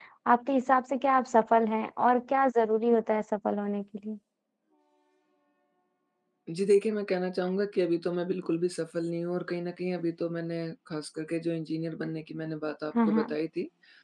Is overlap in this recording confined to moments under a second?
Yes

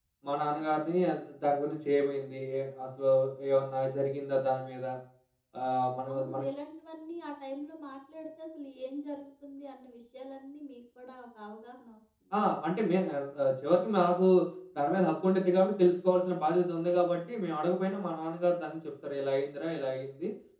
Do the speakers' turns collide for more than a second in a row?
No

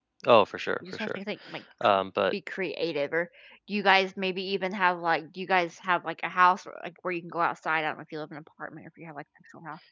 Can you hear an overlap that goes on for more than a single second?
No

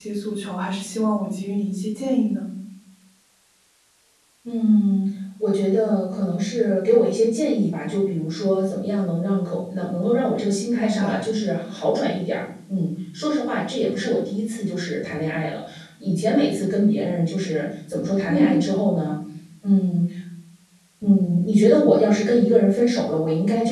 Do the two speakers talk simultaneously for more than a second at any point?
No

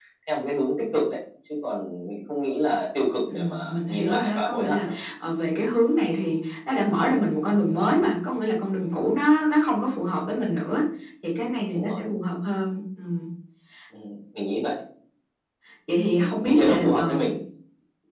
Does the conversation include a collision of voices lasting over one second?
Yes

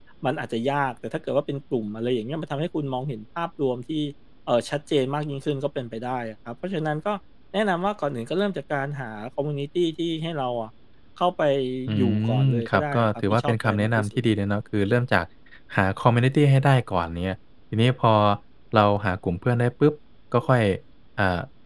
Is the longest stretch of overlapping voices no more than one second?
No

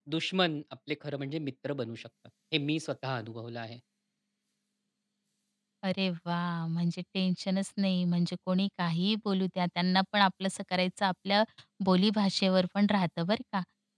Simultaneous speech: No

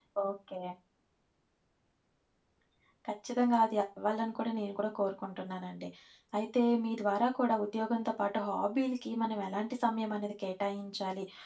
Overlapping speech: No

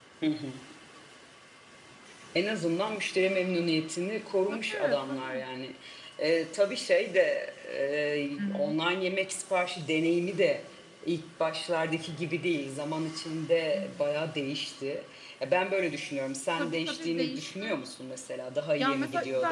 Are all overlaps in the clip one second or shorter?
No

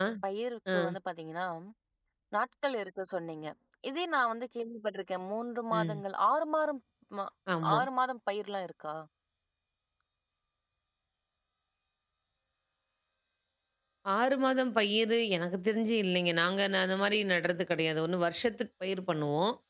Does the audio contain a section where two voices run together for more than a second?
No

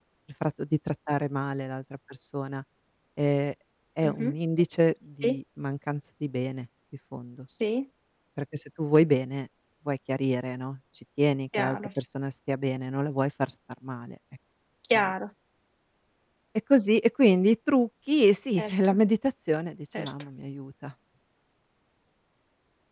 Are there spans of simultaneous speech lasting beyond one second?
No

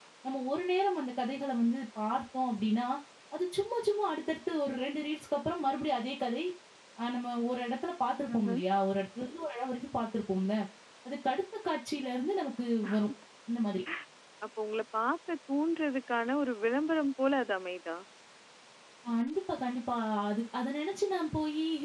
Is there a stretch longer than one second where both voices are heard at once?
No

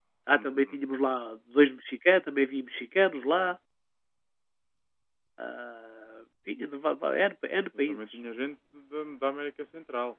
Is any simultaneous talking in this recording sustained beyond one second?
No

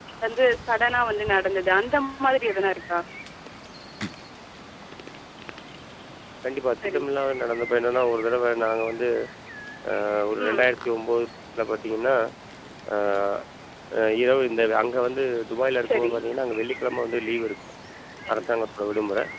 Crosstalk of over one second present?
No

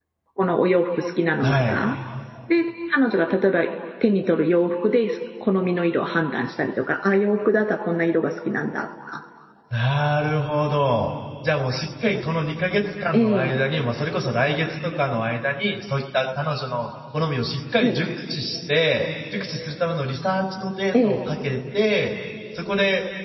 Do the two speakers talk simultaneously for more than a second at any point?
No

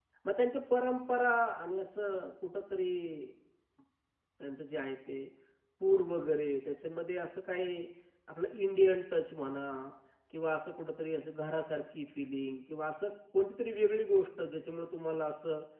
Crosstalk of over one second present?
No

